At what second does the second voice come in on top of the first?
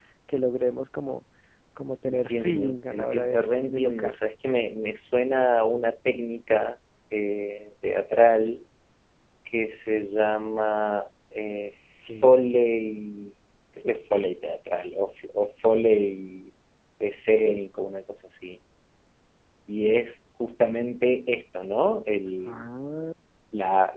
2.1 s

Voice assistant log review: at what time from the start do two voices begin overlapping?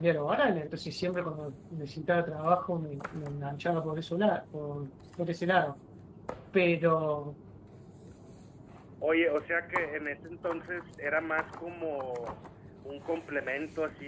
none

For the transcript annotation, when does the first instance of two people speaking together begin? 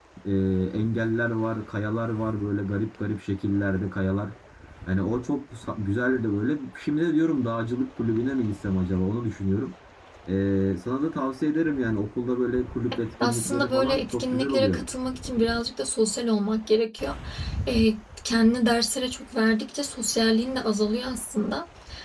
13.2 s

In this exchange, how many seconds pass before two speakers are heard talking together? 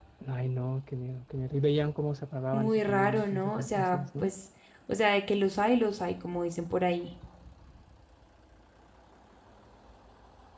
2.5 s

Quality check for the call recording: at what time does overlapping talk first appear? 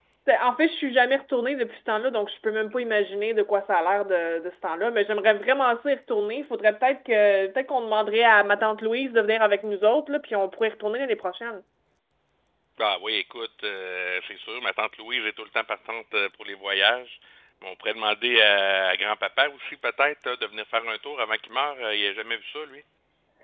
none

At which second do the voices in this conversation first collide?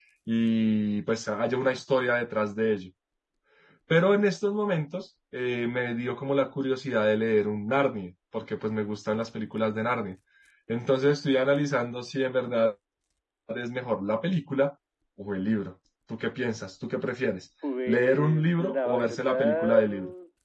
17.9 s

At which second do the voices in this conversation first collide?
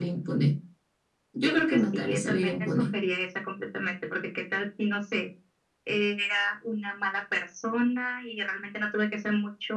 1.4 s

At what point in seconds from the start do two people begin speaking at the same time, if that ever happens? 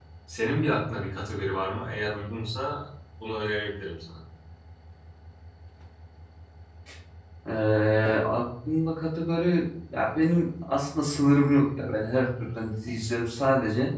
none

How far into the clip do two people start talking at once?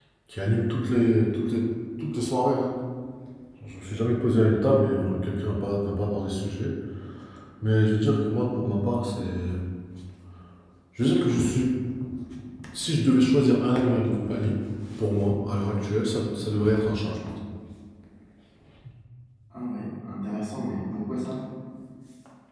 none

